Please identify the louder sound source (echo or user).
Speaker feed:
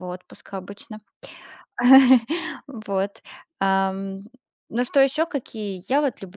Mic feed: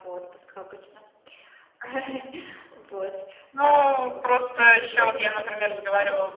user